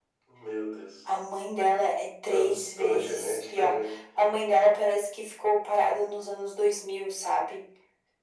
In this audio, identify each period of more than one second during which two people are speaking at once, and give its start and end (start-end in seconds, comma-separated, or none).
2.3-3.8